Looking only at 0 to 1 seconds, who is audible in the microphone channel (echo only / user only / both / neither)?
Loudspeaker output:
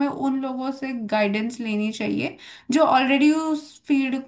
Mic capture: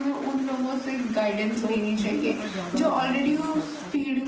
echo only